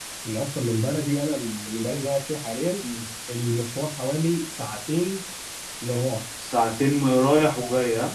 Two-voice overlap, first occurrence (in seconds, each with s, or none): none